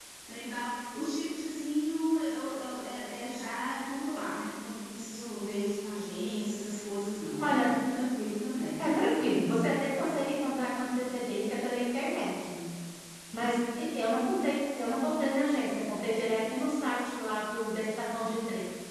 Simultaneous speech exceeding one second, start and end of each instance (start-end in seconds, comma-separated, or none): none